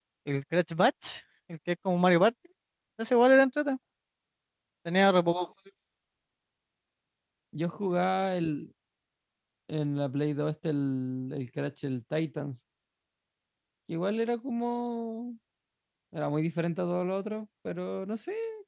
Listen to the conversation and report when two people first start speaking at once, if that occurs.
none

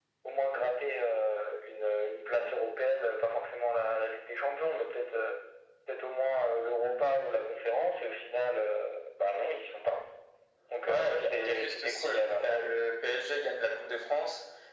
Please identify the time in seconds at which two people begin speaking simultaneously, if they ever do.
10.8 s

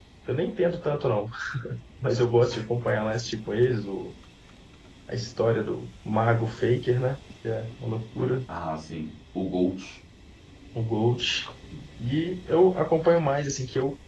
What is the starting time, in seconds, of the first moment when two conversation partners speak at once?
none

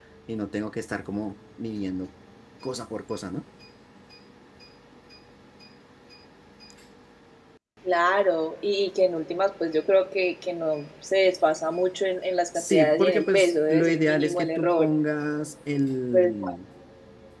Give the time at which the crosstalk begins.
12.5 s

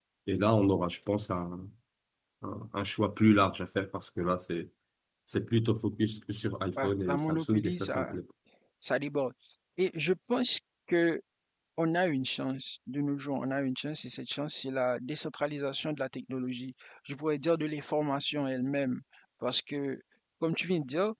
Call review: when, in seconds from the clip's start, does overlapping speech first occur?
6.8 s

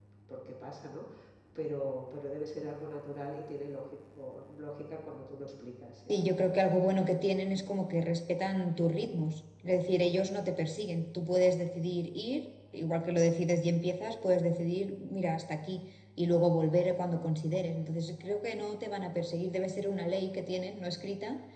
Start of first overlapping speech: none

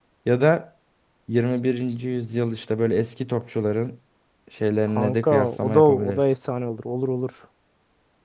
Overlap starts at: 5.0 s

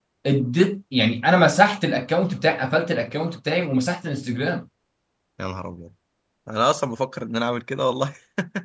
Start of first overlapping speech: none

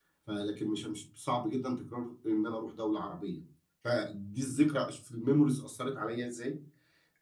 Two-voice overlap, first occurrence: none

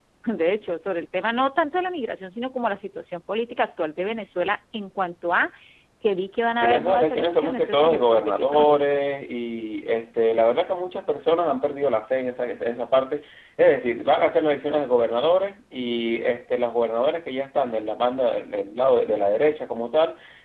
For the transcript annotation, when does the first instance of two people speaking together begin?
6.6 s

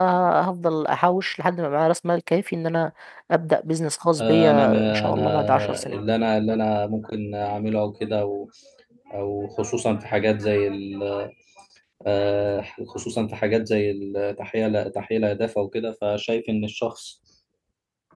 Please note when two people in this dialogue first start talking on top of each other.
4.2 s

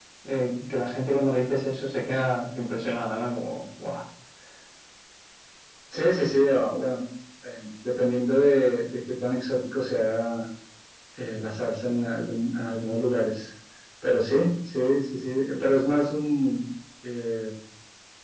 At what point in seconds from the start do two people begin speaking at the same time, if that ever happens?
none

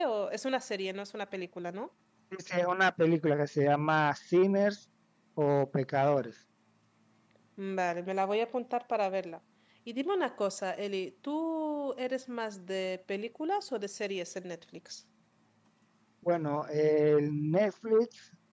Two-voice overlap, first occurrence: none

